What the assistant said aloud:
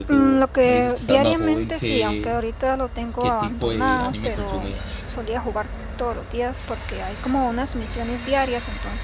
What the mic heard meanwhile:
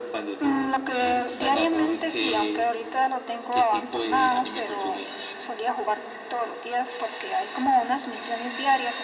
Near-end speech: none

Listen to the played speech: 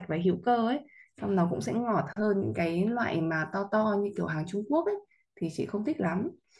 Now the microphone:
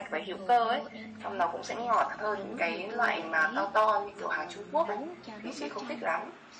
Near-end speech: present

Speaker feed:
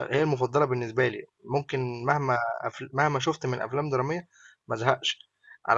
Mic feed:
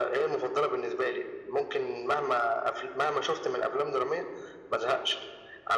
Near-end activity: none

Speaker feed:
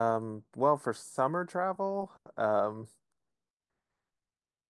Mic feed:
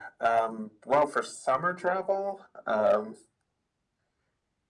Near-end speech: none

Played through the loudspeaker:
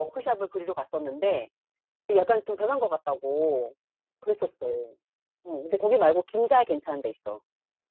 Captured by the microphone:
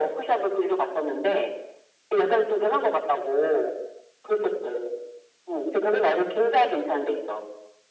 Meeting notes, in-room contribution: none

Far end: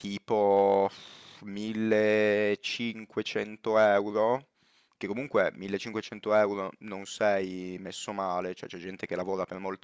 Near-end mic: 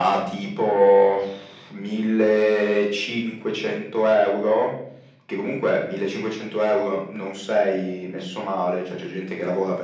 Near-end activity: none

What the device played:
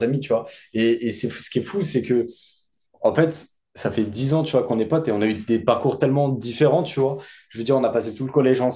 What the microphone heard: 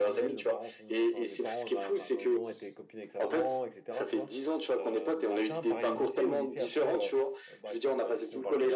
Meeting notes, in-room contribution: present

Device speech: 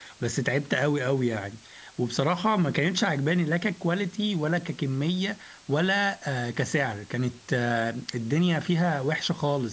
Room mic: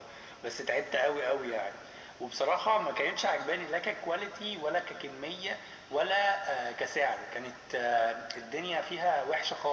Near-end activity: none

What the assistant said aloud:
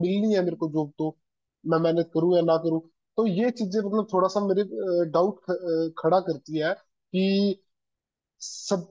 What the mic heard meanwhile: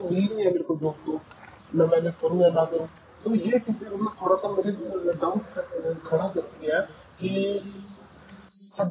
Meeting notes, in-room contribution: none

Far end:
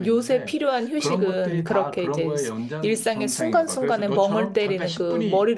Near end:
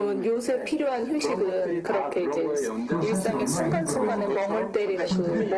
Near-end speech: present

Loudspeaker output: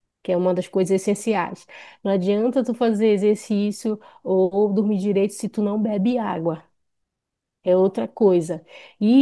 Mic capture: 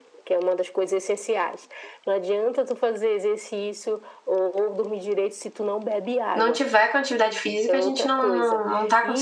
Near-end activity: present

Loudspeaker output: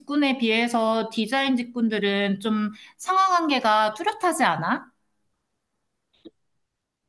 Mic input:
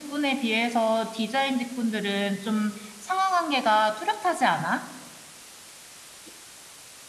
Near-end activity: none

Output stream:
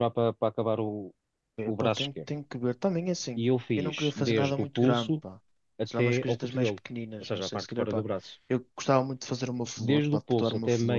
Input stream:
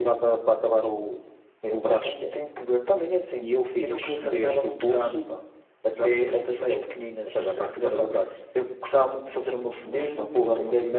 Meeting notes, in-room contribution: none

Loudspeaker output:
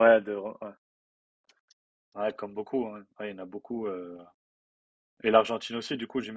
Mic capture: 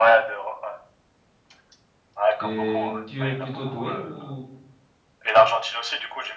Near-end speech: present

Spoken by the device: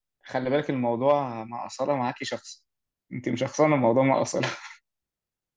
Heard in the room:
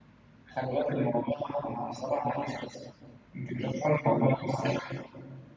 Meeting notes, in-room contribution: none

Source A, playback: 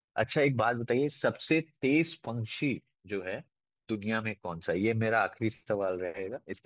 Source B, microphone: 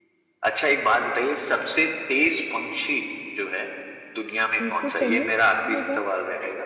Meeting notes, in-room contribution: present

